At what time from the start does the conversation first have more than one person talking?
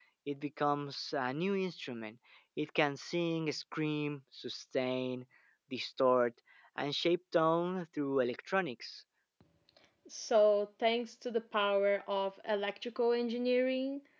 none

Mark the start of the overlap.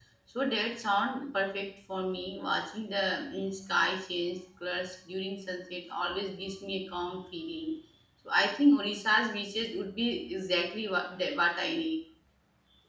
none

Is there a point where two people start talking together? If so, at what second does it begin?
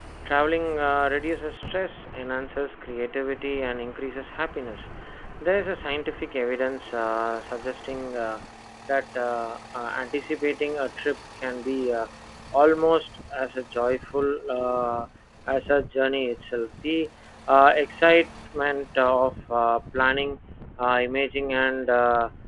none

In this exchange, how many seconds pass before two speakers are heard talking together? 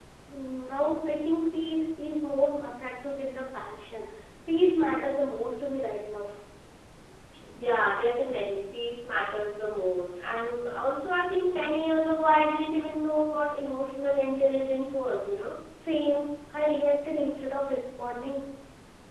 none

